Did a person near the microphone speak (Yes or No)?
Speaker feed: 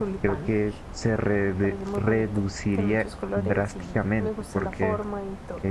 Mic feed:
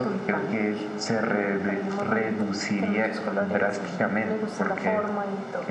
No